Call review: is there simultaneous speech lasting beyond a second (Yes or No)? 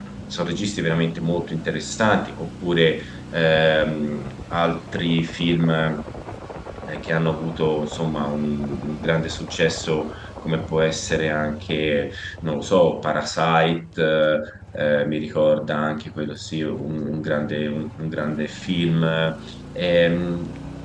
No